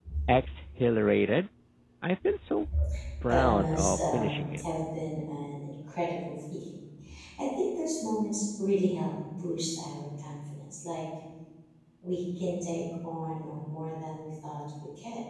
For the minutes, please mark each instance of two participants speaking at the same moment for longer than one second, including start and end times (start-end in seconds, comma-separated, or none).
3.3-4.6